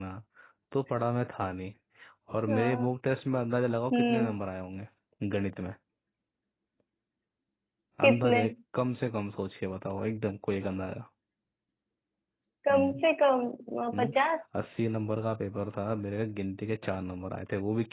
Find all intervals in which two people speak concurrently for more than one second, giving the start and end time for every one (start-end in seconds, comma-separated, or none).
none